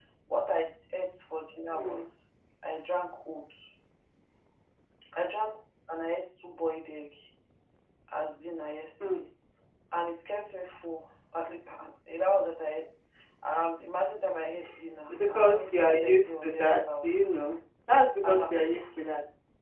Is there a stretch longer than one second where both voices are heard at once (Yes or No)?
Yes